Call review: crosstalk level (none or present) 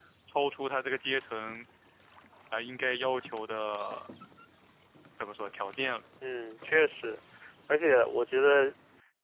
none